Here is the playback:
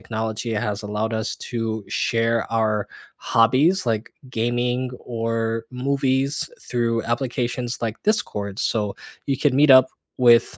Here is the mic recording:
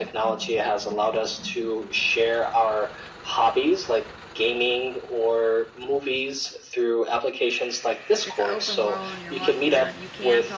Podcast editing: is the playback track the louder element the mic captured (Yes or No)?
Yes